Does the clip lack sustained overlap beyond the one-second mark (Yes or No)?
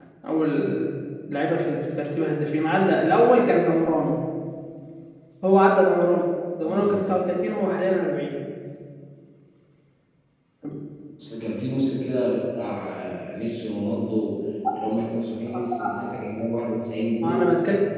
Yes